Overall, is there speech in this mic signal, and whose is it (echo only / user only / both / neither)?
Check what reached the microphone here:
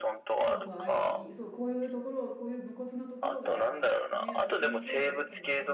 both